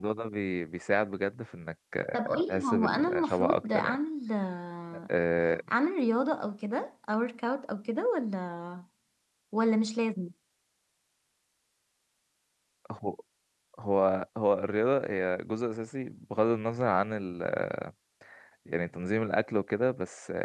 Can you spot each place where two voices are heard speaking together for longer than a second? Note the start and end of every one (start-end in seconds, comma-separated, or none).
2.2-4.0